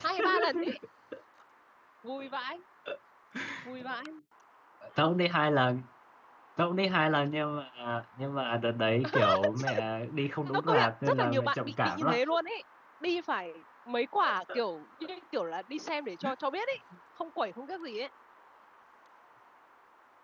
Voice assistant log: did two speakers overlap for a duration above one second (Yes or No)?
Yes